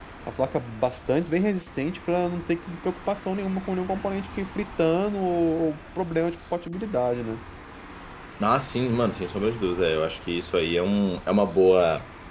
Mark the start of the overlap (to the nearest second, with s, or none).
none